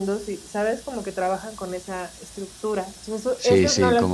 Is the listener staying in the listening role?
No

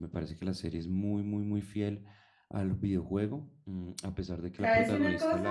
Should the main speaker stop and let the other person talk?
Yes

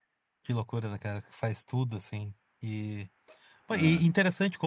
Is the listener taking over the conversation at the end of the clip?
No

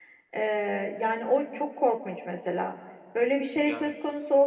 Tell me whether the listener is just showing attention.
Yes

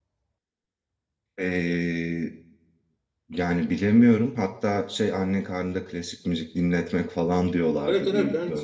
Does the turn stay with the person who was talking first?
No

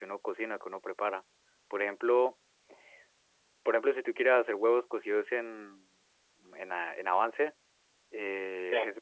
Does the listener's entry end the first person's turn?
No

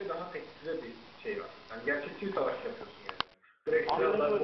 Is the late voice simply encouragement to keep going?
Yes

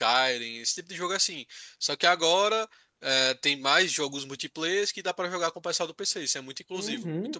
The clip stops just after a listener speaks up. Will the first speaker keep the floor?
No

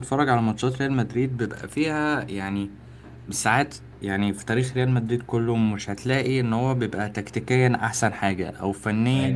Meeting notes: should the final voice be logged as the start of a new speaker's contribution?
No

